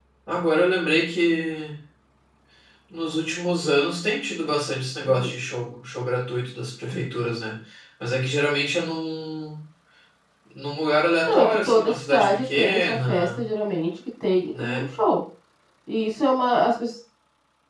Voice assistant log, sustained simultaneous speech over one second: present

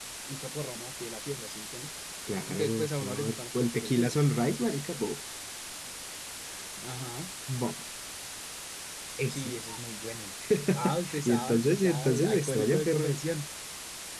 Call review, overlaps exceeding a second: present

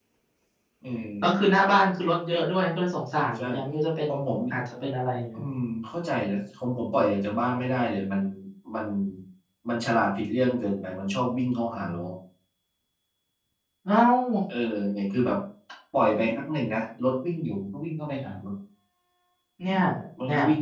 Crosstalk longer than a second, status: none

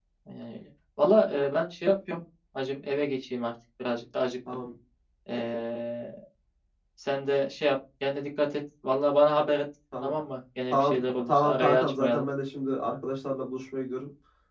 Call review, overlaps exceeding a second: present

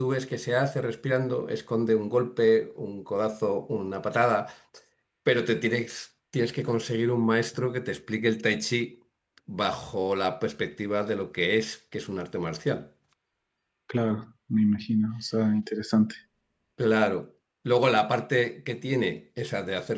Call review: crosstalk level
none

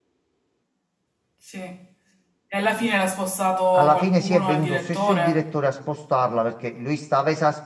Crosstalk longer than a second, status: present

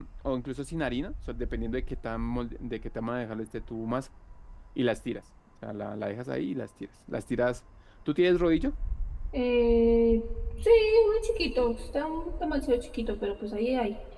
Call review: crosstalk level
none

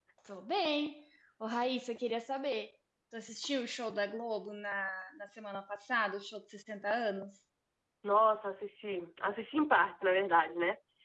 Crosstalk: none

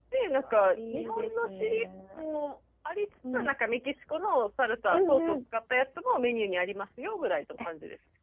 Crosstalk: present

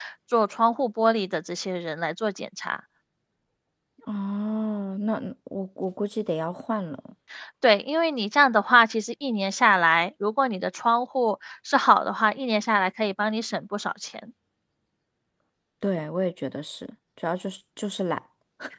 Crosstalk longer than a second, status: none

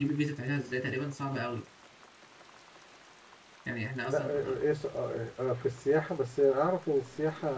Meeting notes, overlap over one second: none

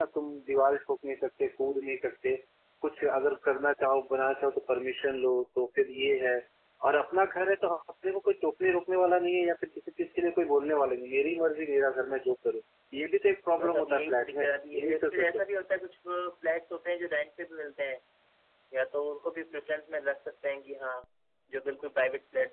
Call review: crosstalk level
present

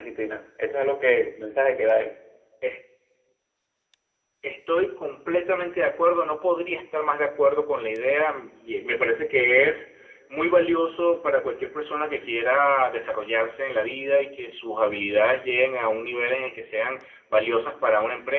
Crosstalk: none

